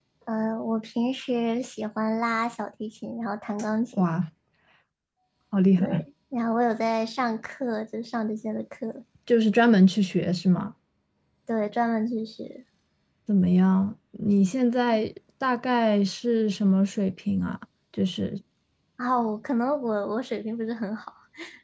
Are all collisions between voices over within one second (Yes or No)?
Yes